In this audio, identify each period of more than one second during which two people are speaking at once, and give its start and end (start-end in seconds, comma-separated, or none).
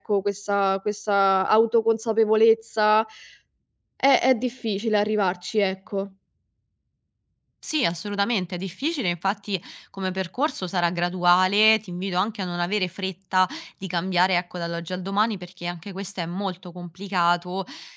none